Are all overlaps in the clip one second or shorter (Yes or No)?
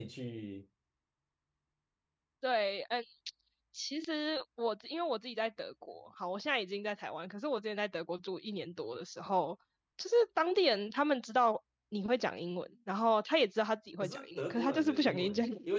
No